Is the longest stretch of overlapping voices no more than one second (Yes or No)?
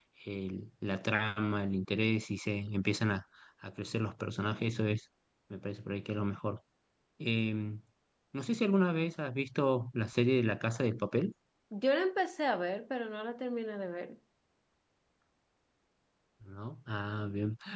Yes